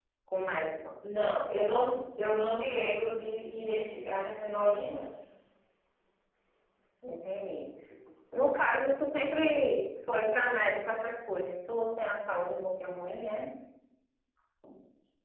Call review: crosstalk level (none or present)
none